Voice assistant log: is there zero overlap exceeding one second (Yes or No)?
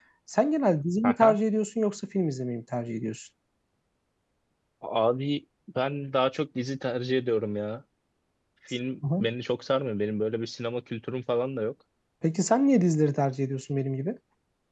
Yes